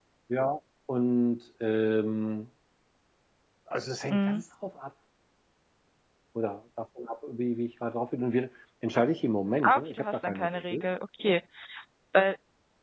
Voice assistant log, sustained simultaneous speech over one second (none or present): present